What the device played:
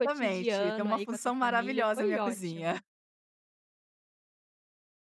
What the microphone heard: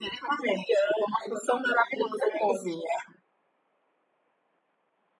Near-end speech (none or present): none